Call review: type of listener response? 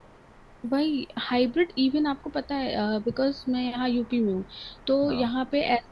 listening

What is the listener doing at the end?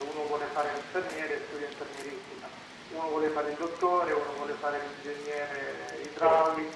listening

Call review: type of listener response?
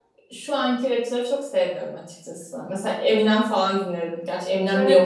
taking over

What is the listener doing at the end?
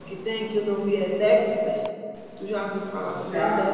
taking over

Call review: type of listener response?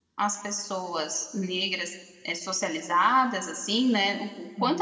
listening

